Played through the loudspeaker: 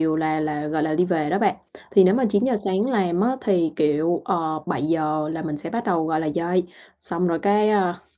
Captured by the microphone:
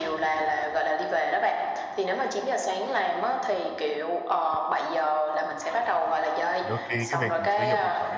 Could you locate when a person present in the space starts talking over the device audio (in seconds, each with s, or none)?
6.6 s